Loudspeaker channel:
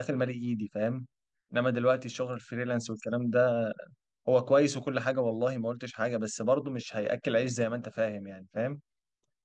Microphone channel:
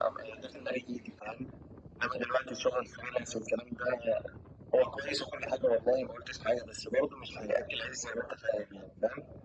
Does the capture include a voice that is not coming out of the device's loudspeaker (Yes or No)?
No